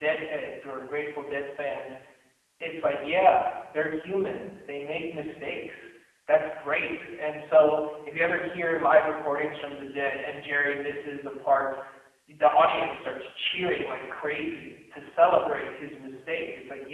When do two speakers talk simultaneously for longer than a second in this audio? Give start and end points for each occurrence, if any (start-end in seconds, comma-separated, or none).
none